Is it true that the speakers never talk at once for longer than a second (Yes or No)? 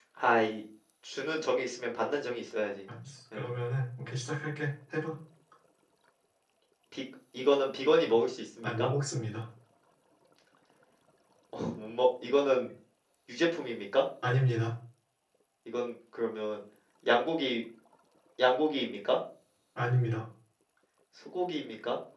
Yes